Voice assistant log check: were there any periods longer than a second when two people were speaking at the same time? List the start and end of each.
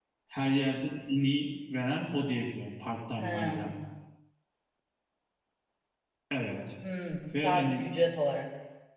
none

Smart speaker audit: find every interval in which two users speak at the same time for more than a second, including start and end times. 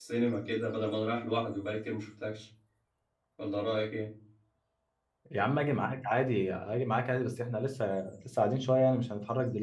none

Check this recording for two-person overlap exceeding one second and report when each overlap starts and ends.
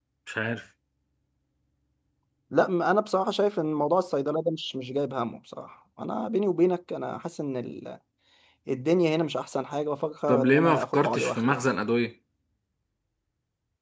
10.3-11.6

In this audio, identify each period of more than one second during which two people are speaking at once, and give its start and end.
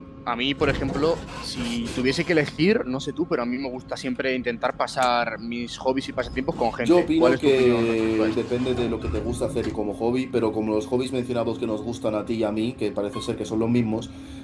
6.8-8.3

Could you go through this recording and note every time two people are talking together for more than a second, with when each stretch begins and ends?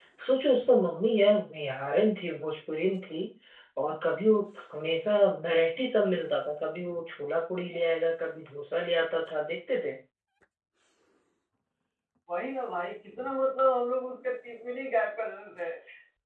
none

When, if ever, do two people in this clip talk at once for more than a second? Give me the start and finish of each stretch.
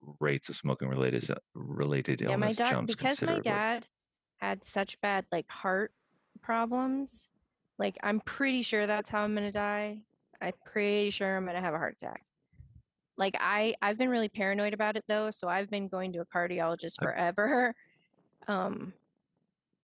2.3-3.6

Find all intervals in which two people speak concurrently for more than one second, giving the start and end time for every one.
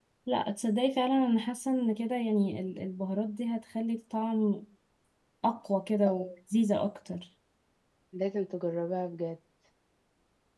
none

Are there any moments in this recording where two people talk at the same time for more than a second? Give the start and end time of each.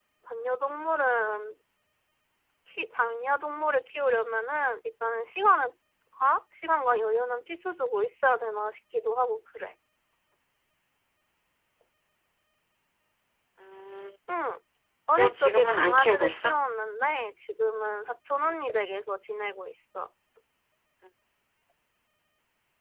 15.2-16.6

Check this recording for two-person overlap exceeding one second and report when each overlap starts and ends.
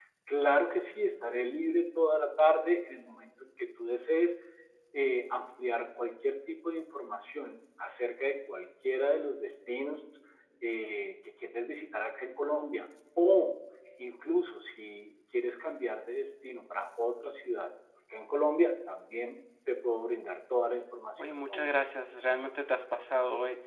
none

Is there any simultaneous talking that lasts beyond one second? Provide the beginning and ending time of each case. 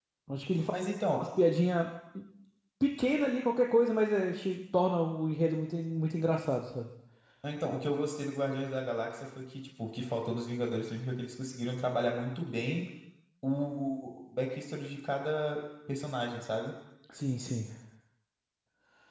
none

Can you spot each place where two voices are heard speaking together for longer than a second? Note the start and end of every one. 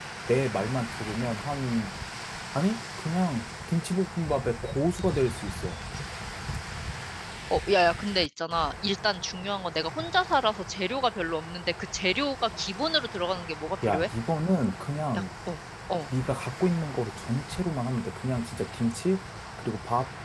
none

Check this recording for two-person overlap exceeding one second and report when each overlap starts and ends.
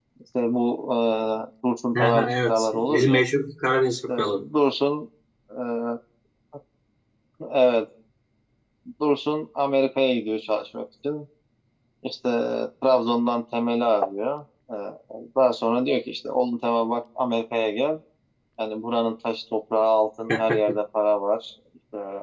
2.0-3.2

